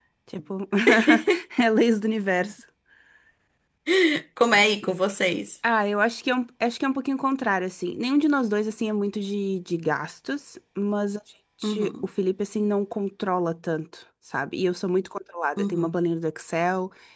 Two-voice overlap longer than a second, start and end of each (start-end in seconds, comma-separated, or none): none